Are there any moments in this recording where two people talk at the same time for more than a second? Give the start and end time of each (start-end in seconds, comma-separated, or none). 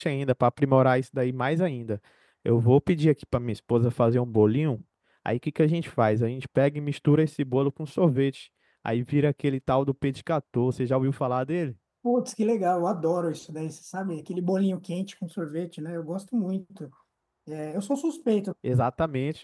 none